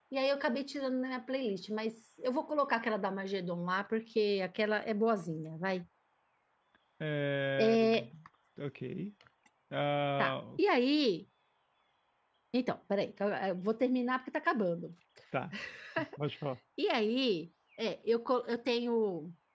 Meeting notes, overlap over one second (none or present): none